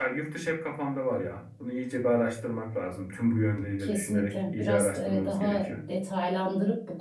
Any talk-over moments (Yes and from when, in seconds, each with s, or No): Yes, from 3.8 s